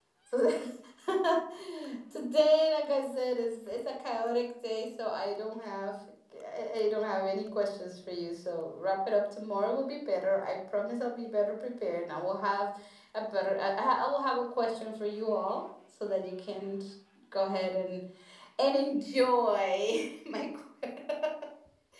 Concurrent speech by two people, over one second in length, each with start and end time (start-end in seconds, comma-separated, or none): none